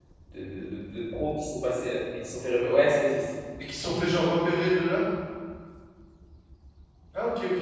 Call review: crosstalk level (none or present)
none